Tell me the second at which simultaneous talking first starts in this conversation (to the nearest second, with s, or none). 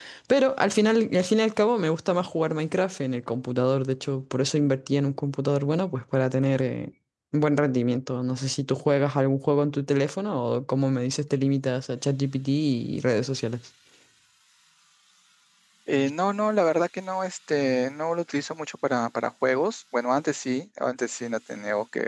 none